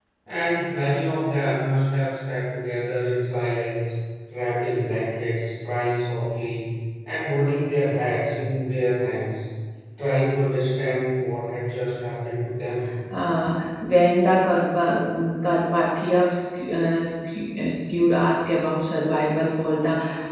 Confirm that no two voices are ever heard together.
Yes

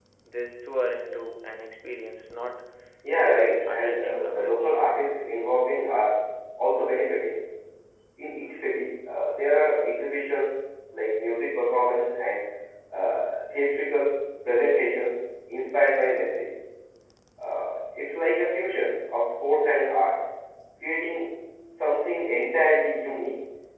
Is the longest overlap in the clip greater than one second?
Yes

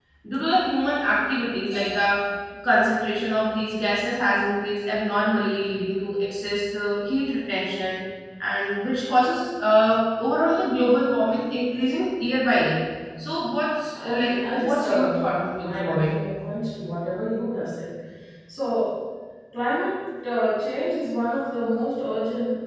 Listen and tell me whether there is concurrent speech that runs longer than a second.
Yes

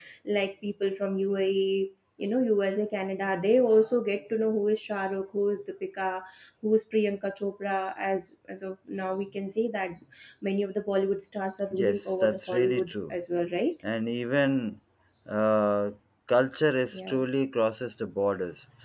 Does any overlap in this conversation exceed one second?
Yes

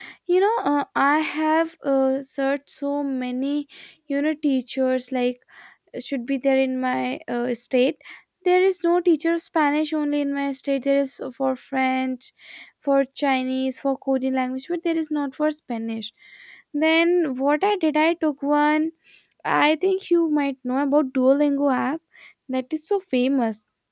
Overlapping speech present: No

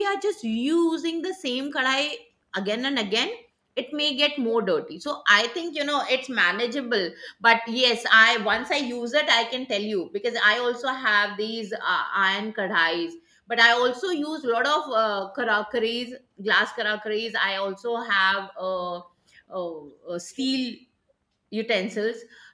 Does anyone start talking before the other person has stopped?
No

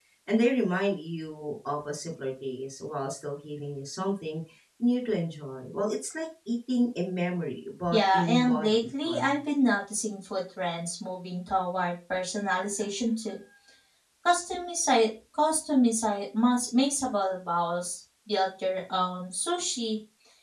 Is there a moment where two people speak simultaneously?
Yes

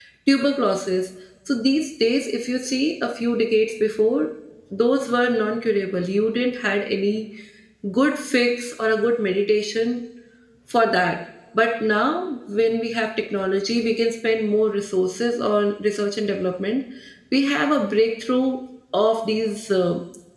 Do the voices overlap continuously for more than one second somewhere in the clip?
No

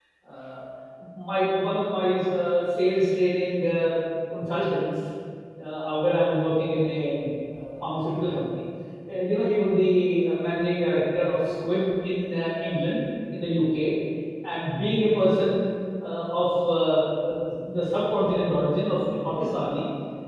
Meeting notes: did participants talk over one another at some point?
No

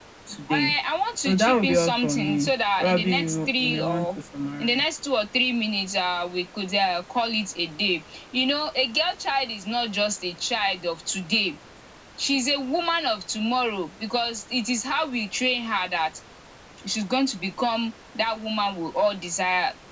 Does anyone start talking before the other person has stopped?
Yes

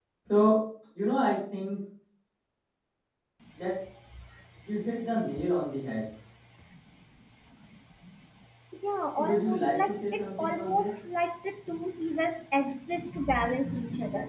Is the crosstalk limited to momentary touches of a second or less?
No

